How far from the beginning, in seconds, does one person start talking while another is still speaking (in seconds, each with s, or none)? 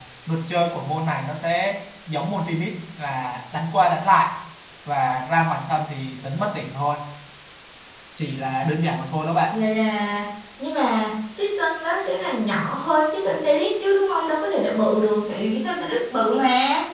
none